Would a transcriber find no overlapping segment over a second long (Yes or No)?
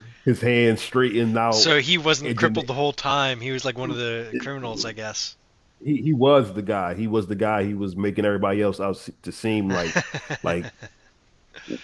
Yes